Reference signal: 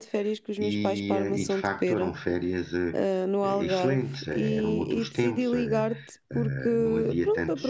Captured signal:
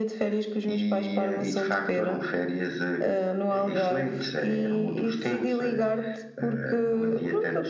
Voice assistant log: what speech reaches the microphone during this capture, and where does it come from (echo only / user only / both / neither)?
echo only